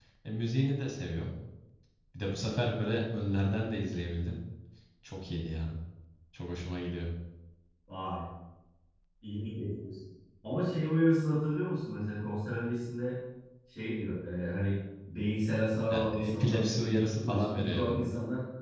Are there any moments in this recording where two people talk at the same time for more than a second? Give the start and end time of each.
15.9-18.0

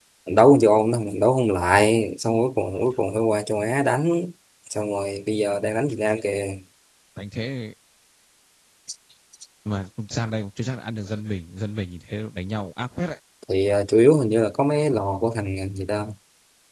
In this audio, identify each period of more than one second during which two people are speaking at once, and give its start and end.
none

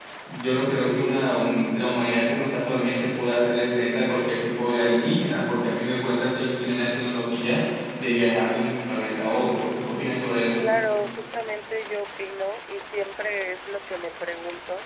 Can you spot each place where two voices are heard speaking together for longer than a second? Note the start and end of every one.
none

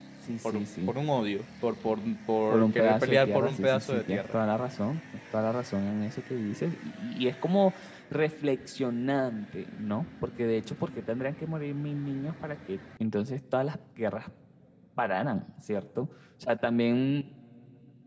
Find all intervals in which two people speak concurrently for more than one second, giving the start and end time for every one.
2.5-4.4

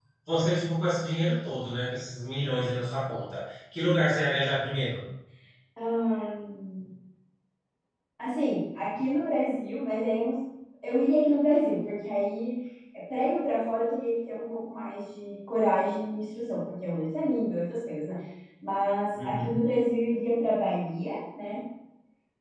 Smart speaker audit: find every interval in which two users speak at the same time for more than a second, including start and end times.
none

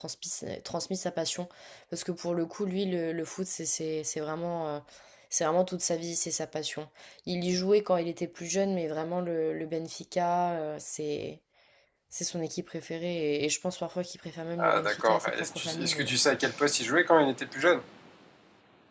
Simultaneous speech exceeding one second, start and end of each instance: 14.6-16.1

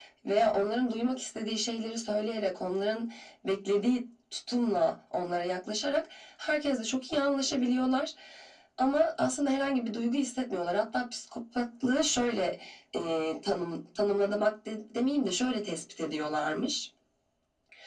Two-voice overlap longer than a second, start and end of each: none

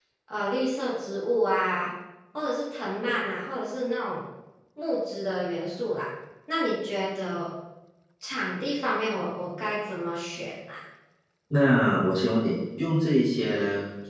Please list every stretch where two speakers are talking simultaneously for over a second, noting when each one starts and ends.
none

